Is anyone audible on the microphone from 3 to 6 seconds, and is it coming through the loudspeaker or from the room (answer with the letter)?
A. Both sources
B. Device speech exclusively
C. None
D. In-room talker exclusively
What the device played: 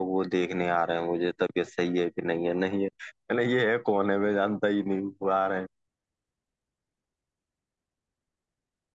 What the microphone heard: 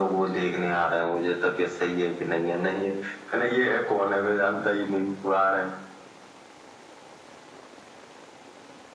B